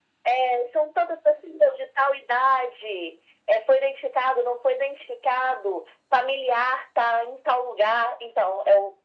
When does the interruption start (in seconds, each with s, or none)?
none